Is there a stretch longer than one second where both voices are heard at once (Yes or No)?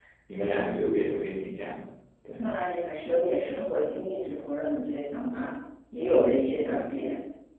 No